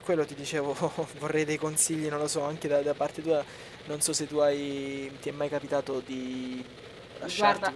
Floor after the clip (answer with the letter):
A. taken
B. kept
B